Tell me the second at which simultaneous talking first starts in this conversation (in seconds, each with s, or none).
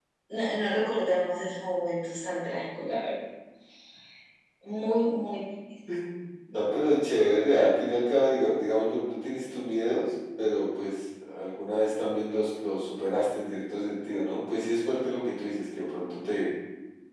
none